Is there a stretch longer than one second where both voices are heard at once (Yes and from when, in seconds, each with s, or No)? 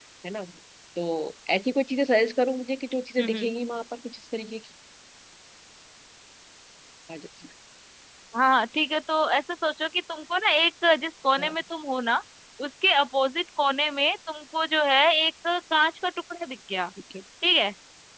No